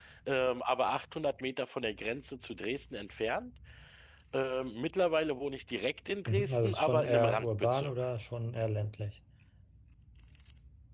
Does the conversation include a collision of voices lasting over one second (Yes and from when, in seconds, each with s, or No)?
Yes, from 6.3 s